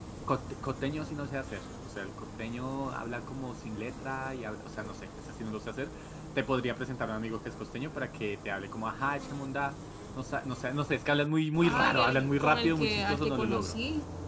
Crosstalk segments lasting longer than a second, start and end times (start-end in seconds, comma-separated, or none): 11.6-13.7